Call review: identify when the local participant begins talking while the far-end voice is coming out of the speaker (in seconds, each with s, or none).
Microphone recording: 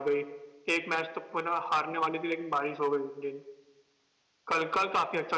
none